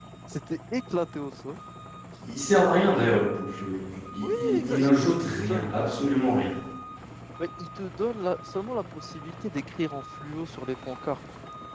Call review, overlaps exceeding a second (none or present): present